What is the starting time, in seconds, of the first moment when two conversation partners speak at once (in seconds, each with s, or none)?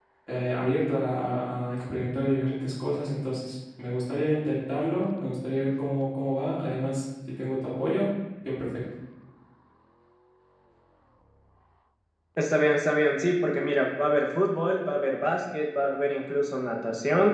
none